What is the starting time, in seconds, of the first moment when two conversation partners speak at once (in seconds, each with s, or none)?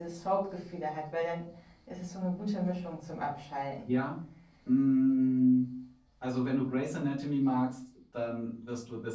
none